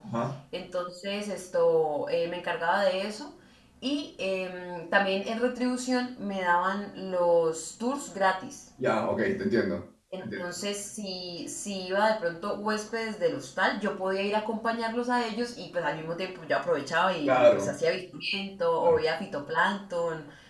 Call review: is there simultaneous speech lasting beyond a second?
No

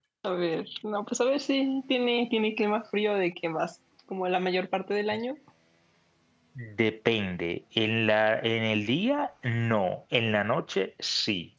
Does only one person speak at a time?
Yes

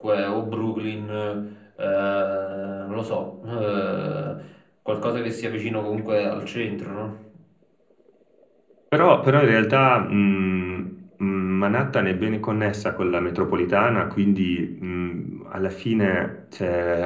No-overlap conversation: Yes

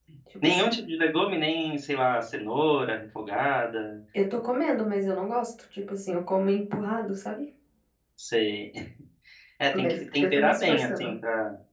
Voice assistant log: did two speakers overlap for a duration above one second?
Yes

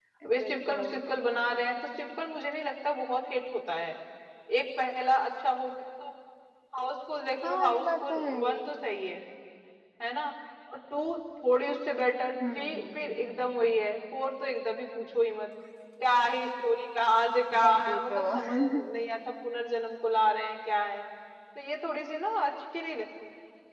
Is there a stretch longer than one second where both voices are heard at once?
Yes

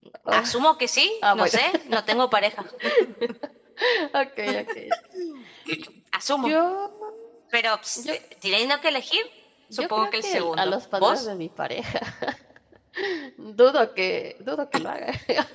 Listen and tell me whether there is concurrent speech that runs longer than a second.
Yes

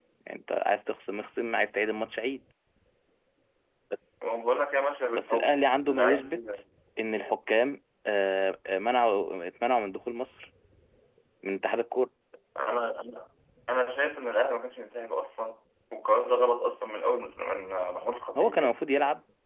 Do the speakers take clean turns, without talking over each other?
No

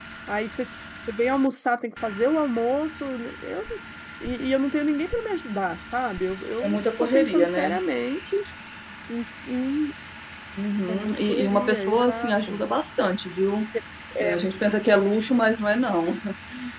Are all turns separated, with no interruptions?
No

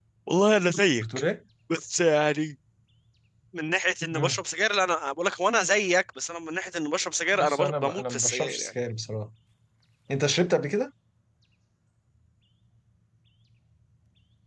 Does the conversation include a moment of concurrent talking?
Yes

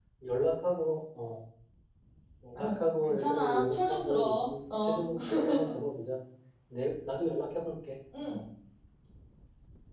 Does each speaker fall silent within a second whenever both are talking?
No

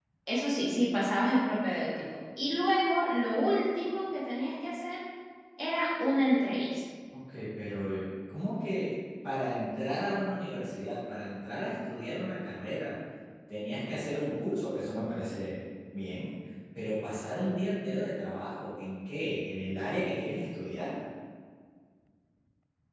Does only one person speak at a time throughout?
Yes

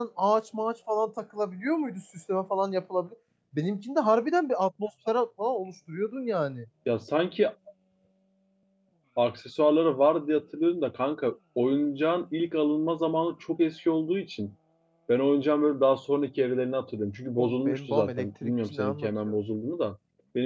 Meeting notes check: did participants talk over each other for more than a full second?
Yes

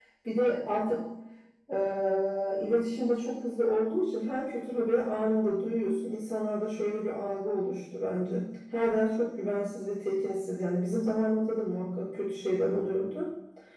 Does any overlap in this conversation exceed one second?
No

